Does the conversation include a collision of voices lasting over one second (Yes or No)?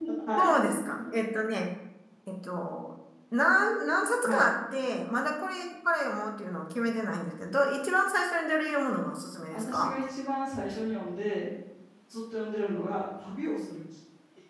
No